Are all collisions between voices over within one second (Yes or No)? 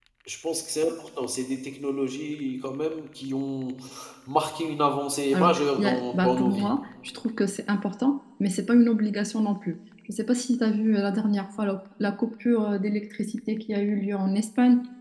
No